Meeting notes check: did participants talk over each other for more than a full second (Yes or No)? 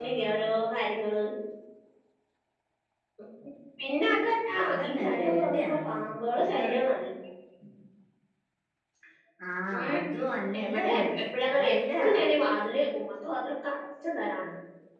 Yes